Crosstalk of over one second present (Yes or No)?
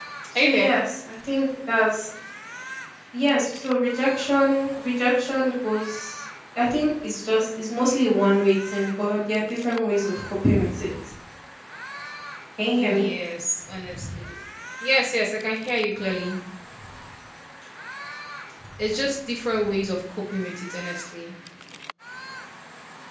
No